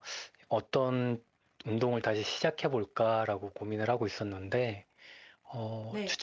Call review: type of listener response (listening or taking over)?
listening